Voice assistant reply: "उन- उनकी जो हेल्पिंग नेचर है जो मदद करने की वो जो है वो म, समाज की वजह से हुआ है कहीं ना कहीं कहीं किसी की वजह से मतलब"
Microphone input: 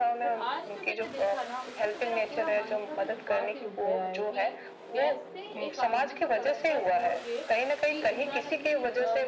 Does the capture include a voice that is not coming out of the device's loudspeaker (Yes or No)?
Yes